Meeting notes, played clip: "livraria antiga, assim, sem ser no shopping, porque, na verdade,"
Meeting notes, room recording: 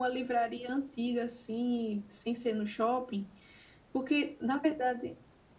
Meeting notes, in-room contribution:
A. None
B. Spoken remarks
A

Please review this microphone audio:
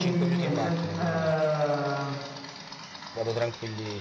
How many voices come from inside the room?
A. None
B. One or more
B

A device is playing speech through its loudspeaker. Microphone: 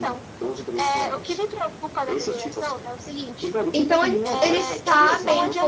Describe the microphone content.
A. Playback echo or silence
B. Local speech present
B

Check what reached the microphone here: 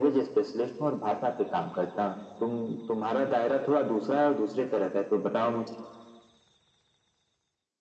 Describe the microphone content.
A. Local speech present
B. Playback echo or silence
B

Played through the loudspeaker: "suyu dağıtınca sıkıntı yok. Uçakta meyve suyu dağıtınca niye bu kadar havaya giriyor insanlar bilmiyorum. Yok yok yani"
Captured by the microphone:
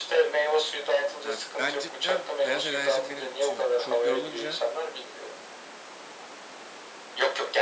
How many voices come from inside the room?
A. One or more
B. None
A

